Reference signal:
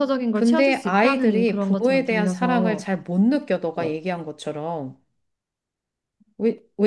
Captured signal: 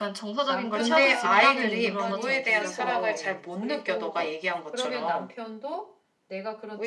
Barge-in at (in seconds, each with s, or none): 0.5 s